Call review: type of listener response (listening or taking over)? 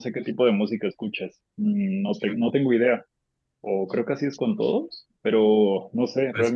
listening